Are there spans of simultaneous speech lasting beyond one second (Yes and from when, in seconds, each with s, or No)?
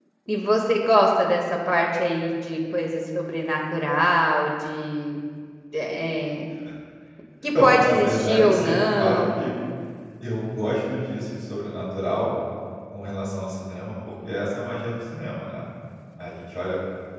Yes, from 7.6 s